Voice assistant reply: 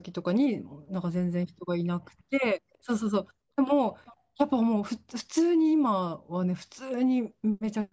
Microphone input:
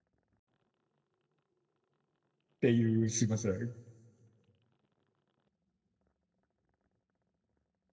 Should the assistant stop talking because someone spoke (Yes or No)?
Yes